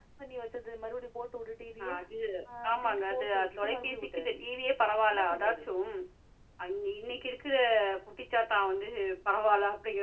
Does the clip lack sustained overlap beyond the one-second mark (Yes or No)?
No